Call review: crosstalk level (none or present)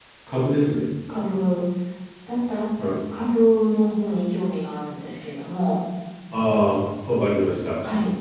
none